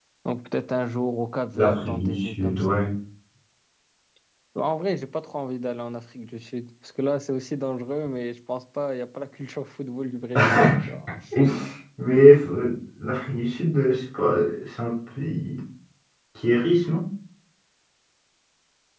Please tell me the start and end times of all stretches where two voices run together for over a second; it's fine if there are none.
1.5-2.8

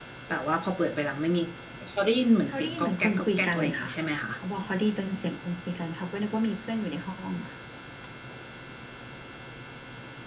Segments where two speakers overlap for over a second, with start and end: 2.5-3.9

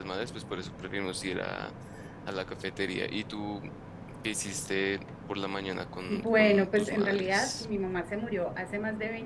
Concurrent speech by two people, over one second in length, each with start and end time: 6.1-7.6

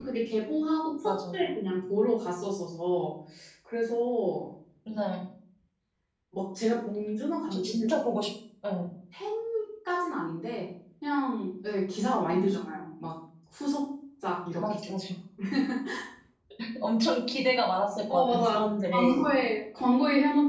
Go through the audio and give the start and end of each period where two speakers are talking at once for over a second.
18.1-19.4

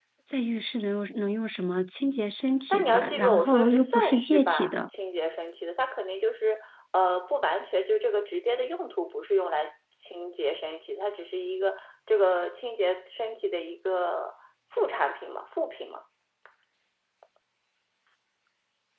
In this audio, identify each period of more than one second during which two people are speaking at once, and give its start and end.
2.7-4.7

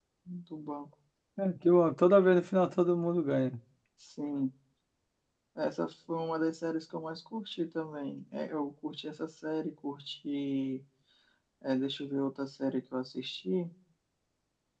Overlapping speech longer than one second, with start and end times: none

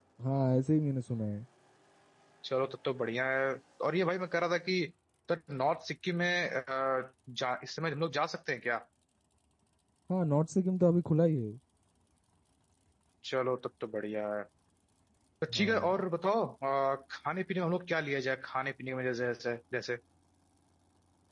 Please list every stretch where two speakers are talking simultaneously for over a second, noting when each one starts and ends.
none

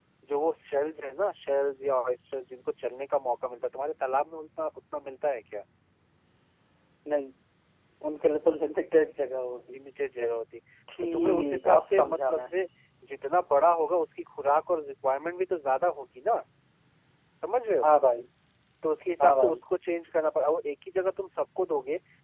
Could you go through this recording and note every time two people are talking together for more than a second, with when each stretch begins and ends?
11.0-12.5

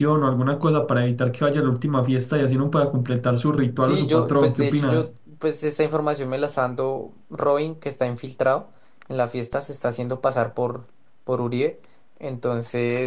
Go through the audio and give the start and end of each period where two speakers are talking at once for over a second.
3.8-5.1

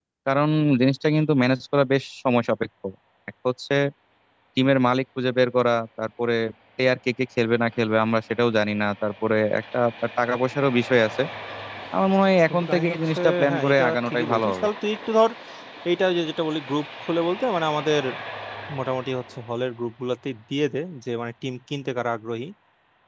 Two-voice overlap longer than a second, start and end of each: 12.5-14.7

